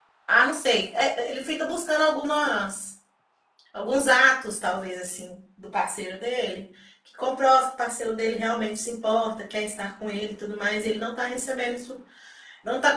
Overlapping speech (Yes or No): No